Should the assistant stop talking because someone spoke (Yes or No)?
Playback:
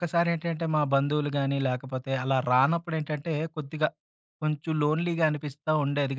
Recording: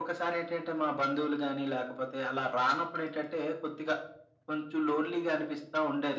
No